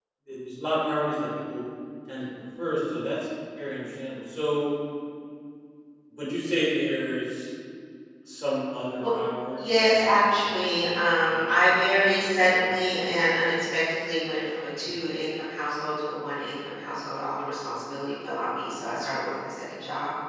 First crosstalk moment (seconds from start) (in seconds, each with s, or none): 9.6 s